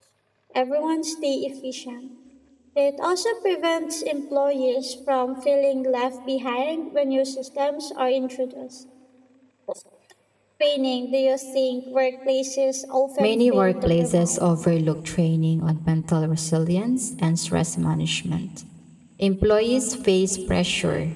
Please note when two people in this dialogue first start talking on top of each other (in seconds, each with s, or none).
13.2 s